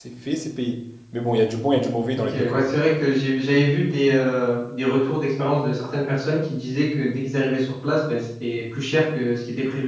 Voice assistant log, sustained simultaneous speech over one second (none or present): none